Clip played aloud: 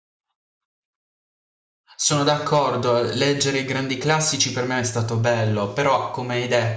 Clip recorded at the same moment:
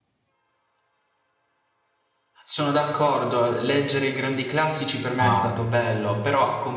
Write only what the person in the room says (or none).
Wow.